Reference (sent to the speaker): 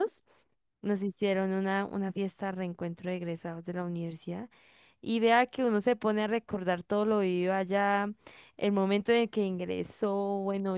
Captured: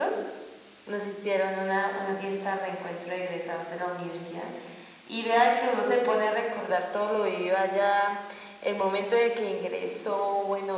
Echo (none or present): present